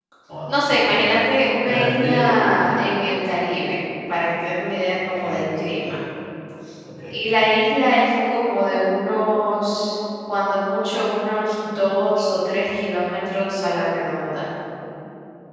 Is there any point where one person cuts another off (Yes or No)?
Yes